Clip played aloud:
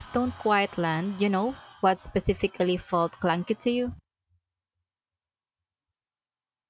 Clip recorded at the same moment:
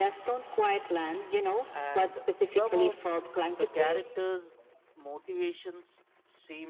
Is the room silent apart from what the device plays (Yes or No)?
No